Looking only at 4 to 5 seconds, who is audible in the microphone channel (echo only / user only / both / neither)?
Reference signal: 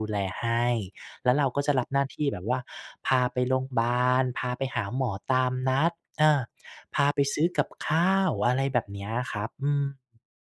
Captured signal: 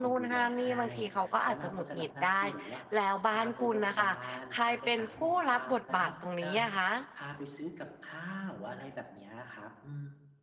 both